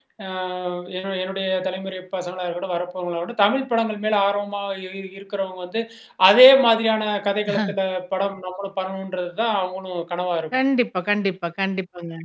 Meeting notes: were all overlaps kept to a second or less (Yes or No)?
Yes